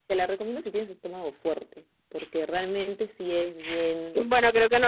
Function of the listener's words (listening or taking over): taking over